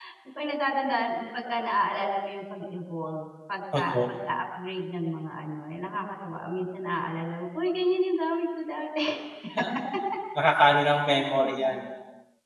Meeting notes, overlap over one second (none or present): none